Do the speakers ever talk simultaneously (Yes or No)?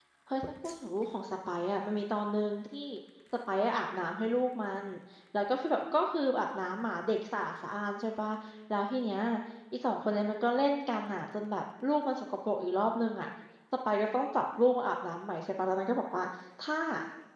No